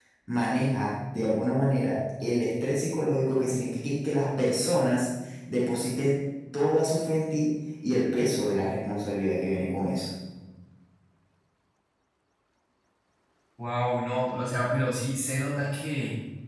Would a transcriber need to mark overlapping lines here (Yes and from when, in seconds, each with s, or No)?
No